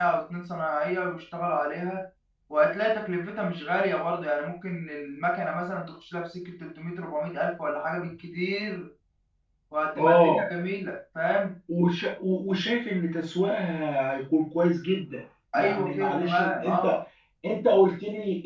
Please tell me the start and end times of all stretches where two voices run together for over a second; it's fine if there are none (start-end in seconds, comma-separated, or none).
15.6-17.0